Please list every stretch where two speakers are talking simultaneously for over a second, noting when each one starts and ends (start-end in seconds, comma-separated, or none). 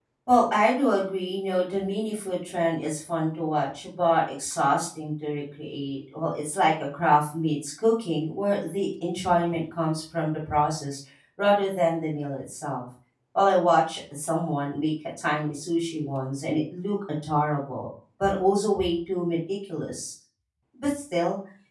none